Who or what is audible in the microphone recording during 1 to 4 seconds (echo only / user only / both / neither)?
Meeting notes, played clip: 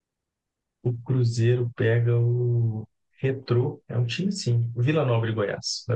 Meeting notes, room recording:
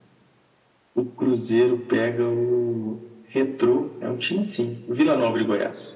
echo only